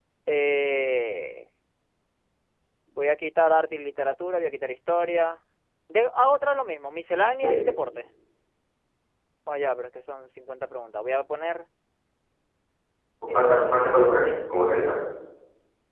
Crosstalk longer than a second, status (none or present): present